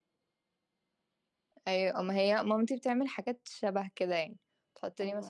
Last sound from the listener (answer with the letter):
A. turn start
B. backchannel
B